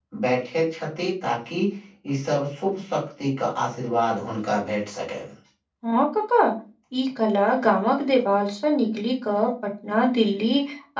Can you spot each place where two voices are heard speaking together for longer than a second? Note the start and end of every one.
none

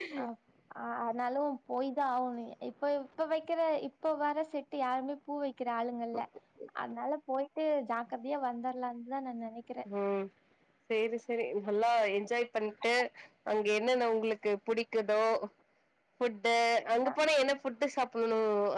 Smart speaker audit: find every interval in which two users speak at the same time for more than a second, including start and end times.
none

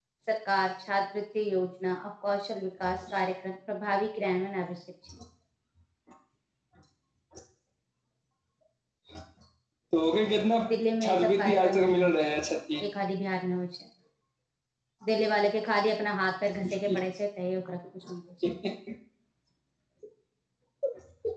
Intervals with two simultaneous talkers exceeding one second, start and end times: 10.7-12.1

